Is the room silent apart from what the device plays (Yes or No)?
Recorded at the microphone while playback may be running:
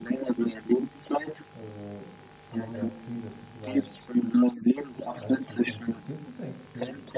No